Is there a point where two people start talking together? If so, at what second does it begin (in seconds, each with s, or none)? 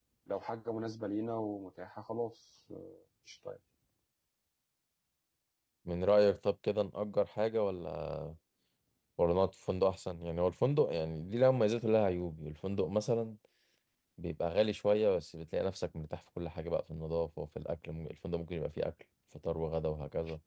none